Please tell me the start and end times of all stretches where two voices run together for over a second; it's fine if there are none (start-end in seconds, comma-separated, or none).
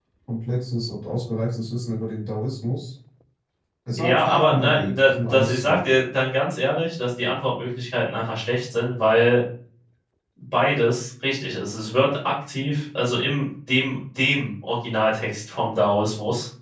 4.0-5.8